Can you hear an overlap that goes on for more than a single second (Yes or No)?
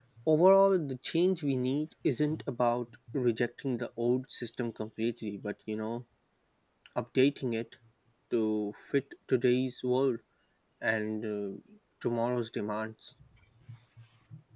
No